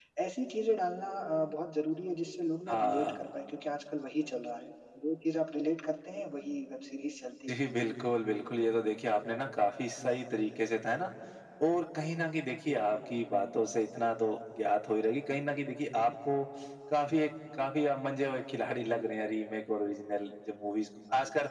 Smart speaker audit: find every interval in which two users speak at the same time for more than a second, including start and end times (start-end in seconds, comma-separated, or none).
none